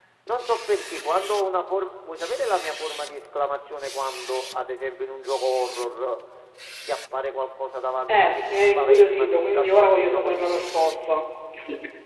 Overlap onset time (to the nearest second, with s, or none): 8 s